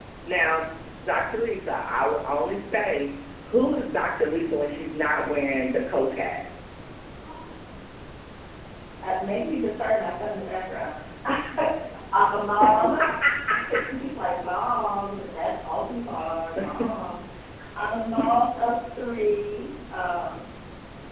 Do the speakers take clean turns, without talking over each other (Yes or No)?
Yes